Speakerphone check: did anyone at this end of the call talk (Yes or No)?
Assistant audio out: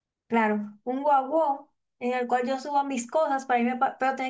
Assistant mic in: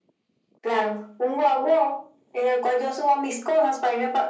No